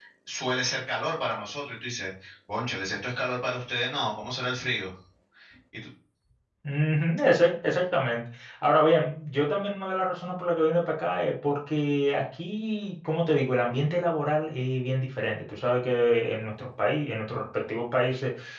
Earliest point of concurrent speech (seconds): none

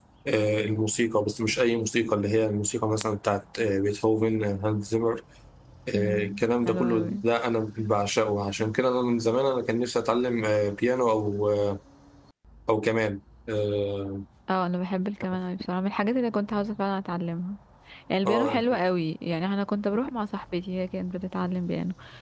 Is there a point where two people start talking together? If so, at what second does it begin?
6 s

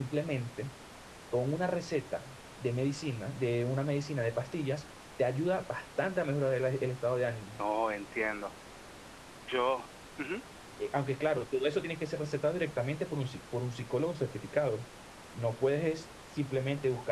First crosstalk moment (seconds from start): none

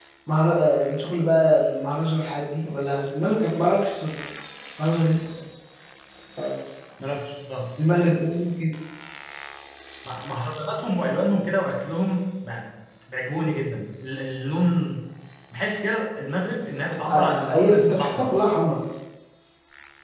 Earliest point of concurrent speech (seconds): 17 s

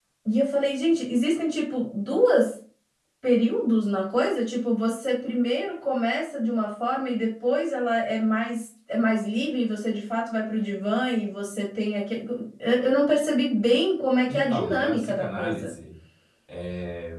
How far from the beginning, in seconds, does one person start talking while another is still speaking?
14 s

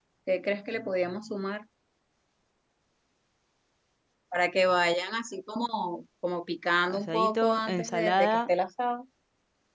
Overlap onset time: 7 s

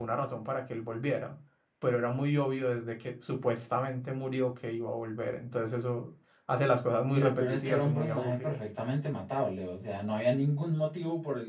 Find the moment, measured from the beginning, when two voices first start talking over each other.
7 s

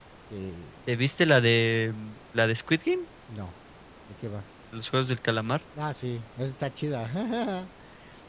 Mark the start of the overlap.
none

